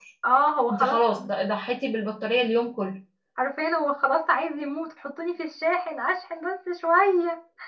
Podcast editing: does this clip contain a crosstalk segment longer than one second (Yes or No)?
No